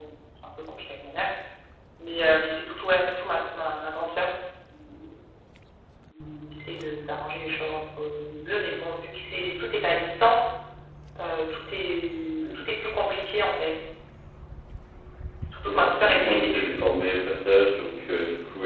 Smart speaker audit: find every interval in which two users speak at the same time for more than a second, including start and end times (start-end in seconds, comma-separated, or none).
15.6-17.0